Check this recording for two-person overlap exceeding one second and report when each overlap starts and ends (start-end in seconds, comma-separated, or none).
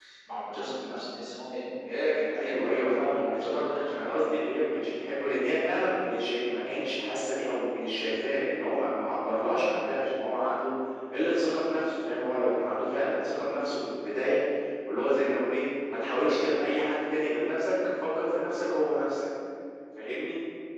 2.3-4.2